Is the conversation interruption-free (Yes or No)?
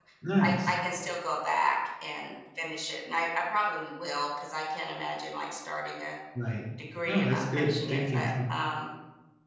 No